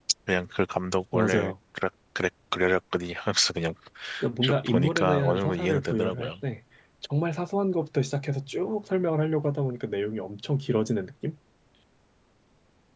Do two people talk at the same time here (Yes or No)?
Yes